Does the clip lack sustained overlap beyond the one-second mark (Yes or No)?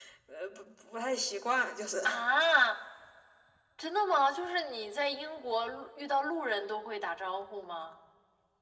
Yes